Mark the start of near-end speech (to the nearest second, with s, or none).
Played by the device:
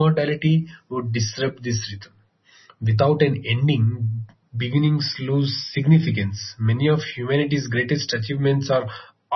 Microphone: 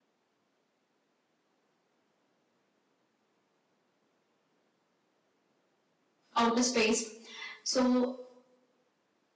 6 s